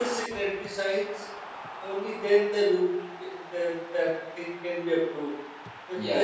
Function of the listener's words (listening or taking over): listening